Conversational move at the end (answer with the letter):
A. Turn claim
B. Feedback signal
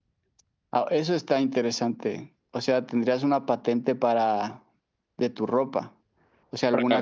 B